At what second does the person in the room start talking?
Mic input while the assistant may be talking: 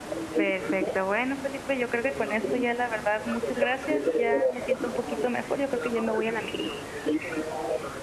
0.3 s

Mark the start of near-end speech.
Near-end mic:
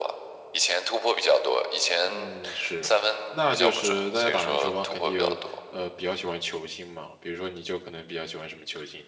2.0 s

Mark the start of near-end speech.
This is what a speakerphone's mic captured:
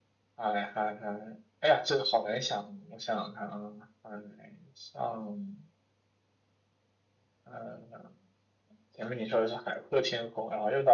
none

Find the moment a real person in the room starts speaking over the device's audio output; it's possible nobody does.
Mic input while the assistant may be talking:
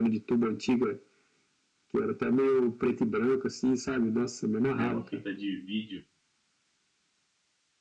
4.7 s

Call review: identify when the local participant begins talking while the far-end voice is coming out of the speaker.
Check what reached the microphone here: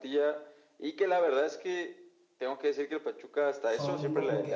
3.6 s

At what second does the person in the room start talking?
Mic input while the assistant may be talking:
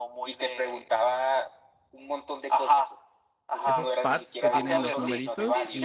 3.6 s

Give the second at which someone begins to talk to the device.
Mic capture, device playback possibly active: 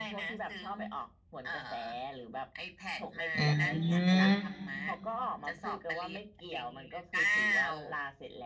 3.4 s

